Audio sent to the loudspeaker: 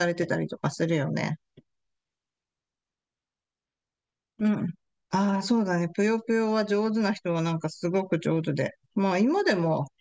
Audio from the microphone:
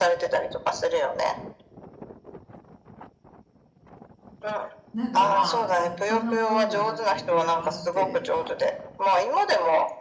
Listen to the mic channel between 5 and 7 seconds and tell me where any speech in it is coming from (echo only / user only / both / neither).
both